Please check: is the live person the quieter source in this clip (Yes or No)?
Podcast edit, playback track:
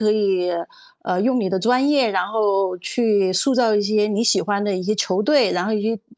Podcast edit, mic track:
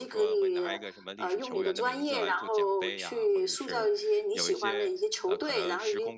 Yes